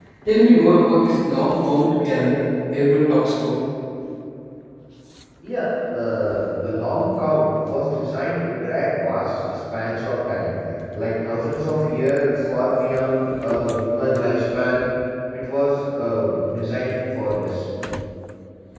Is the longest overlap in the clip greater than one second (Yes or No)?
No